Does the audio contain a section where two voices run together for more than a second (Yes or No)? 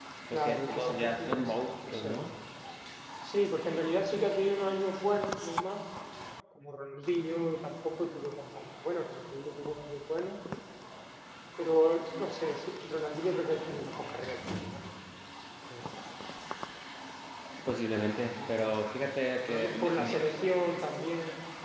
Yes